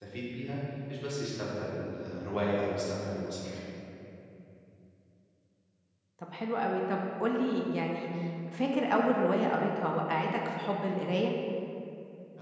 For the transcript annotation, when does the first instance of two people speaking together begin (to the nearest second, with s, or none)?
none